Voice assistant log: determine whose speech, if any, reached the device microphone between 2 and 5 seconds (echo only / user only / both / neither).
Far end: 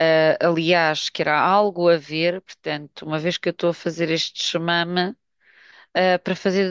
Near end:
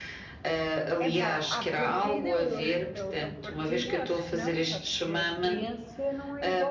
both